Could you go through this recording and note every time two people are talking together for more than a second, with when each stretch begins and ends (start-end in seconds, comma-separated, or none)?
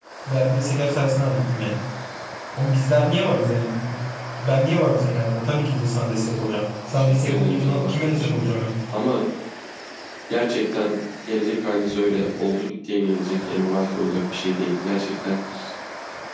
6.9-8.6